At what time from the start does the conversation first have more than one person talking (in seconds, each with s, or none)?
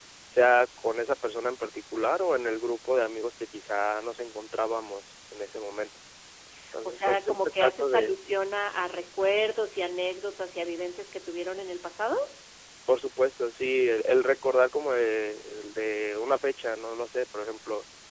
6.8 s